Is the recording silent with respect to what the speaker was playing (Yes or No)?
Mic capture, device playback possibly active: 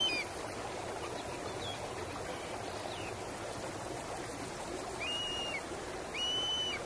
Yes